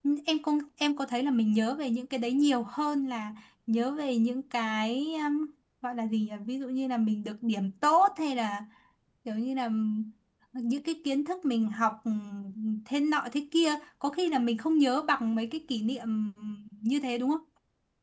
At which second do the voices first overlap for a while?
none

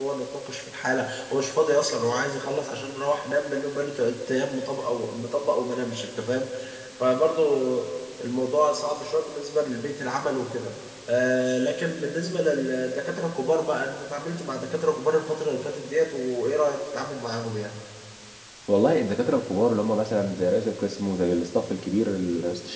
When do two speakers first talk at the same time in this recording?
none

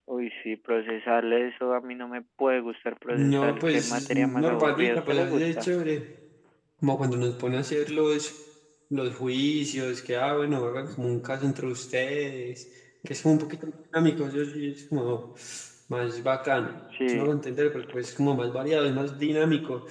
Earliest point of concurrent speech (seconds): 3.1 s

